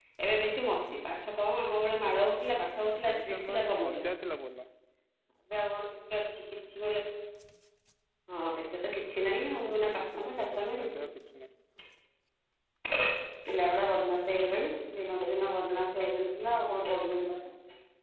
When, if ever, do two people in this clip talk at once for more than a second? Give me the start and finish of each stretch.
2.8-4.1, 9.6-10.8

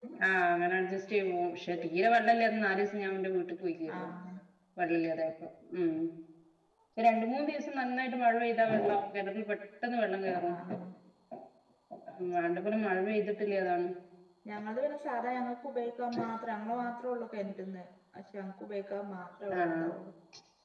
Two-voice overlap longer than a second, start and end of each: none

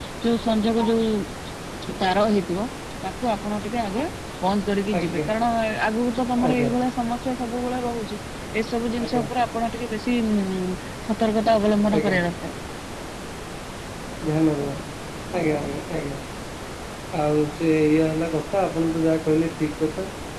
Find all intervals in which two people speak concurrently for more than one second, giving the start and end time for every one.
none

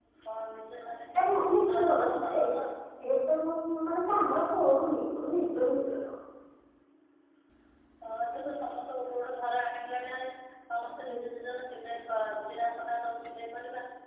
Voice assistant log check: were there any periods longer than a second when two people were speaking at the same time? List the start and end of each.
1.2-2.4

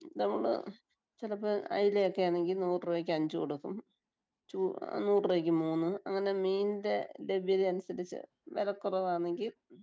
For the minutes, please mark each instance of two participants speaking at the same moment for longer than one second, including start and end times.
none

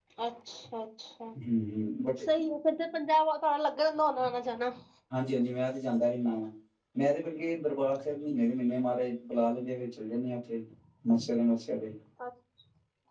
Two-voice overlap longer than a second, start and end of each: none

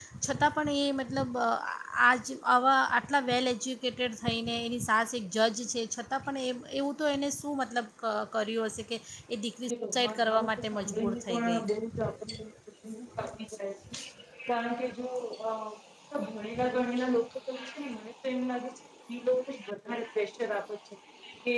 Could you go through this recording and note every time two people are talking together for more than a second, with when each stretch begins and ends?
9.7-11.6

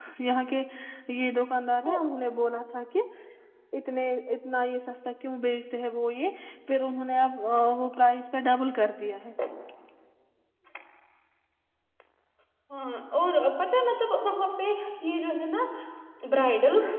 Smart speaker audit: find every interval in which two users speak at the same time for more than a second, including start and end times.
none

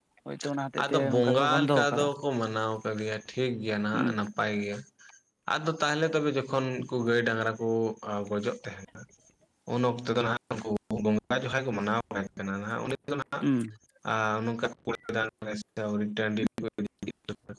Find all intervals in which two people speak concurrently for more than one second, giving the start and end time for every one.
0.8-2.1

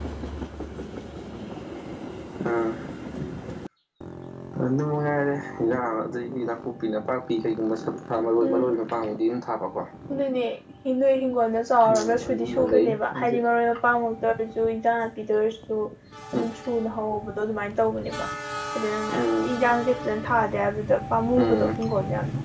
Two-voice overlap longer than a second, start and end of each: 12.0-13.4

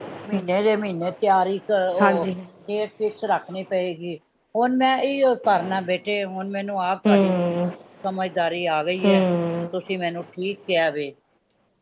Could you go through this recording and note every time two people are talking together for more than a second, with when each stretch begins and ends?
none

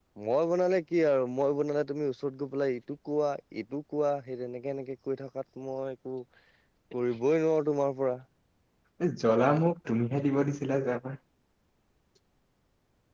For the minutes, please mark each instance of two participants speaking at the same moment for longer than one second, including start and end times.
none

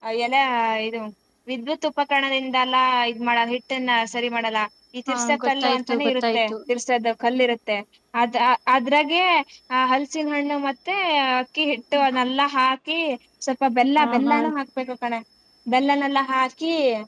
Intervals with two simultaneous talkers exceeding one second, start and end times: 5.1-6.5

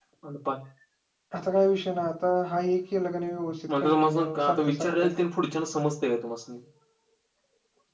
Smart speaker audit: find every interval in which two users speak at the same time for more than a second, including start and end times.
3.8-5.0

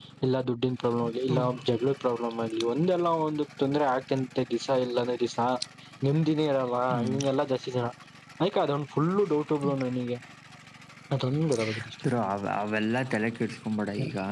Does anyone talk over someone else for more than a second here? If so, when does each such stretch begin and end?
none

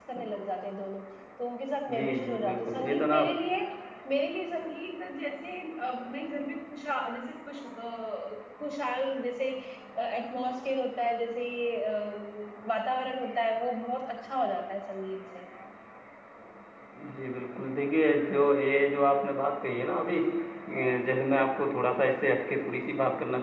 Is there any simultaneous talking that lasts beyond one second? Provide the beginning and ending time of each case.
1.9-3.2

